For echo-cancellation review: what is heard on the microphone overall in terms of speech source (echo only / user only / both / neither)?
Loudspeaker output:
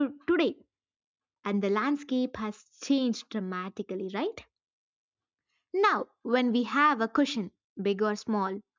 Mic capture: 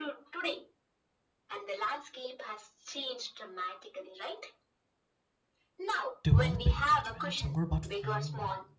both